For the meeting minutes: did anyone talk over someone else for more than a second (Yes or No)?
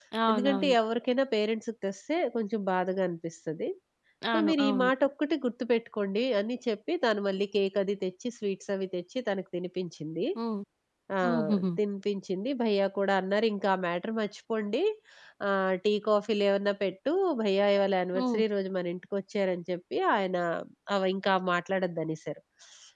No